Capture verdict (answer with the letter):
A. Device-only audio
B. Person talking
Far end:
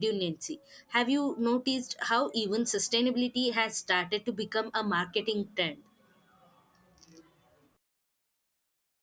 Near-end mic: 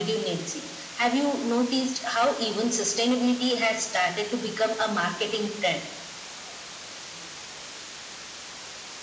A